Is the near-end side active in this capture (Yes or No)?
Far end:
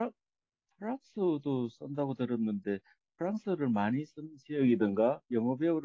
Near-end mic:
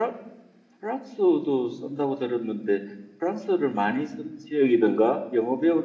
No